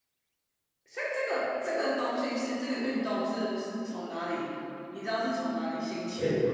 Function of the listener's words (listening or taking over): taking over